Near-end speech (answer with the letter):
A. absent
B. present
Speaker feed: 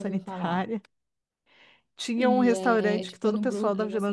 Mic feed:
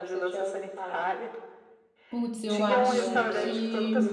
B